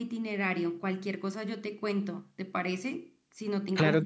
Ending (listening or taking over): taking over